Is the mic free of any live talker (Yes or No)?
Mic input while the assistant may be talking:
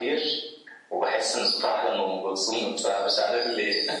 Yes